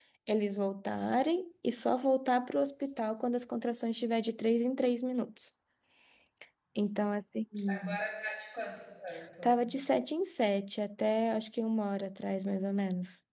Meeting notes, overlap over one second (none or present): none